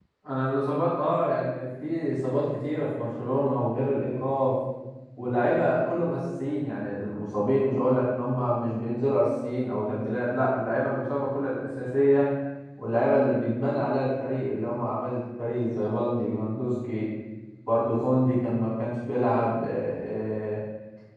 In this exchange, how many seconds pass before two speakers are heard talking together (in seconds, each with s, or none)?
none